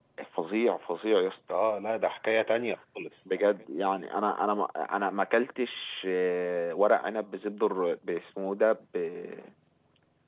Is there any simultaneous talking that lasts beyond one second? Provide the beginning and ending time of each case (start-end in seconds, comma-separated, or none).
none